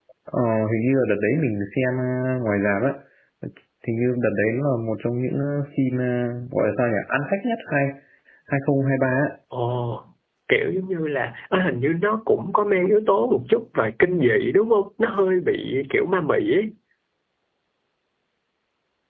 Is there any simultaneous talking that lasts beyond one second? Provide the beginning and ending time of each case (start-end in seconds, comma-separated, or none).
none